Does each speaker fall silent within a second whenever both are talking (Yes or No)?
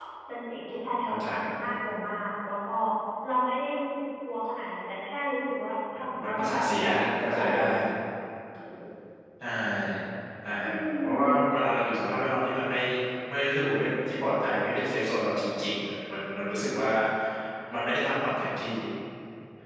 No